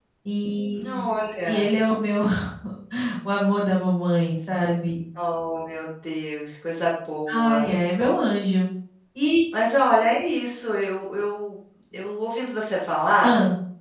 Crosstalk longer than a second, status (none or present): none